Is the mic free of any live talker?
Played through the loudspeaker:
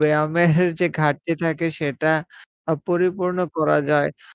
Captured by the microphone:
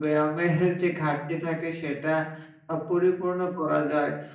Yes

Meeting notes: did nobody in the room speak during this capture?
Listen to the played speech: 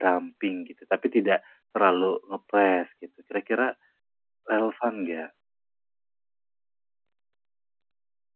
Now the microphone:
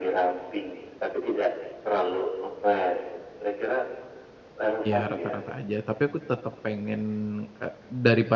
No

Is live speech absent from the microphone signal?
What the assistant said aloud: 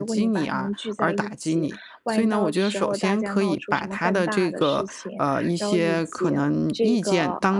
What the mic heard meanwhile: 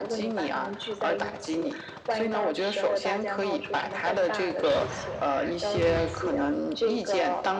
Yes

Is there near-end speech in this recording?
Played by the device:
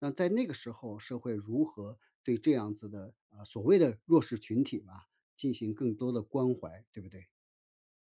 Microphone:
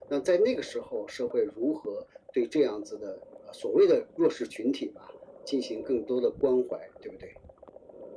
No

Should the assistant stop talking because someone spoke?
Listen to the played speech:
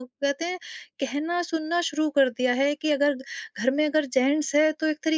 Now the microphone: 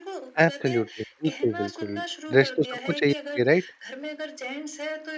Yes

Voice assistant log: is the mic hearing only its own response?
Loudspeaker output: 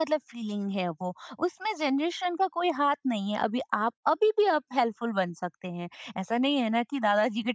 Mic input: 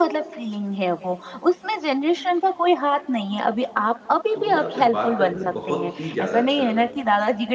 No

